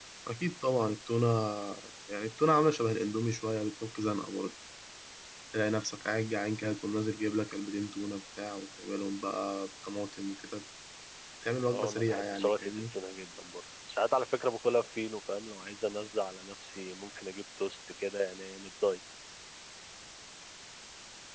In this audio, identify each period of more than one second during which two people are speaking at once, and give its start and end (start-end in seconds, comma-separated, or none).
11.7-12.9